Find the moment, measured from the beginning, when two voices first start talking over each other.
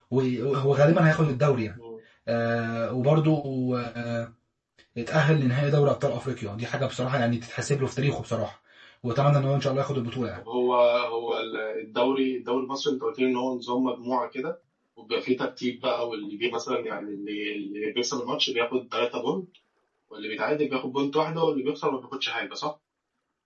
none

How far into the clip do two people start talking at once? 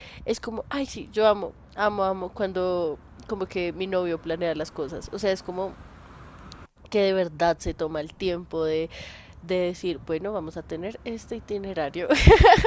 none

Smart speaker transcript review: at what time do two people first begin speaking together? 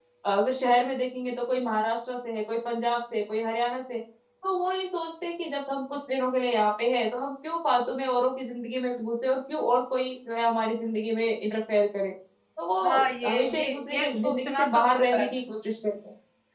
12.9 s

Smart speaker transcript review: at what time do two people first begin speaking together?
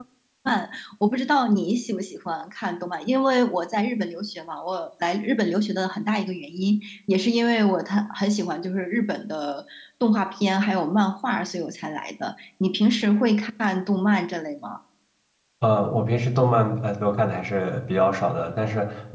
none

